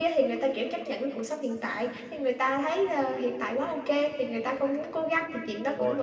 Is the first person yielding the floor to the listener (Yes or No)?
No